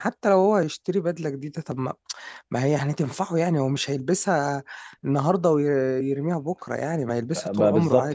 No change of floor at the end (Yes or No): No